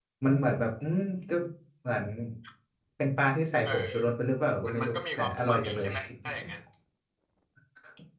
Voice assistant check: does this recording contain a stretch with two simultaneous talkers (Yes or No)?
Yes